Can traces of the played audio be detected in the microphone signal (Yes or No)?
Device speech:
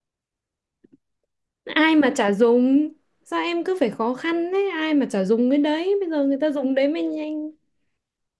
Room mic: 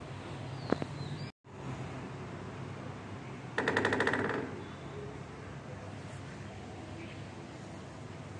No